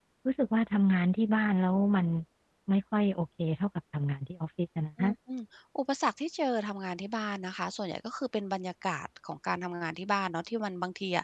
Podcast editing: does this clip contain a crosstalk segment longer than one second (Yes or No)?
No